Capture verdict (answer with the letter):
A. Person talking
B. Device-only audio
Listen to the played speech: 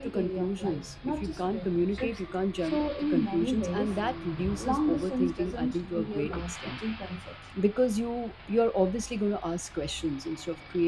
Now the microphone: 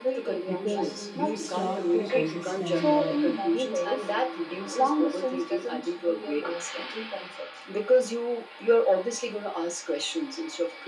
A